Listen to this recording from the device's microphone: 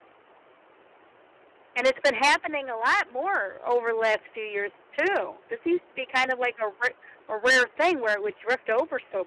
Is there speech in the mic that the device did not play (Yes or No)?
Yes